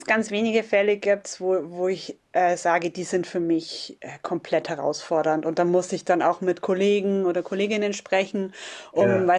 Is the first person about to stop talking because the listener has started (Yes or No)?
No